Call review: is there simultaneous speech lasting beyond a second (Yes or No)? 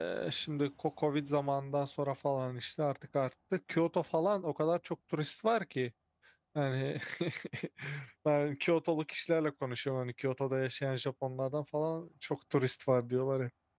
No